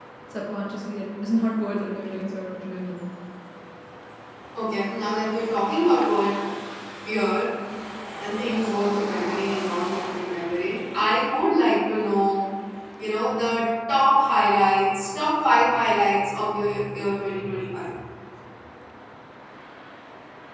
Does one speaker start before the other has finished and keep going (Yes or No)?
No